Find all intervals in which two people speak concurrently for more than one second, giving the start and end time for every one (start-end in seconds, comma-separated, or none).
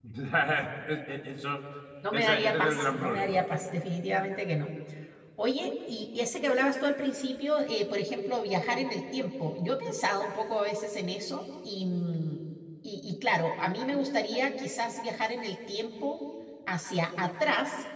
2.1-3.4